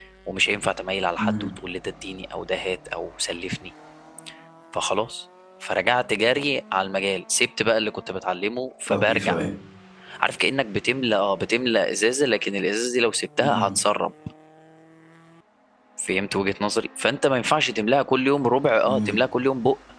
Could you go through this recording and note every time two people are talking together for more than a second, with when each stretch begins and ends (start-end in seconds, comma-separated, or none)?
none